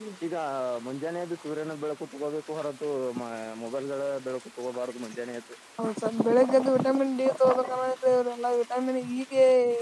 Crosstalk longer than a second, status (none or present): none